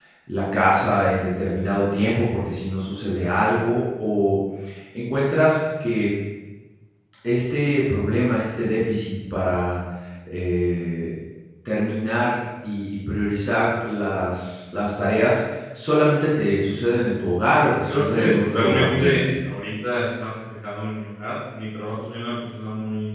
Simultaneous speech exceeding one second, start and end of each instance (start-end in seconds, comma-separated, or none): 17.8-19.2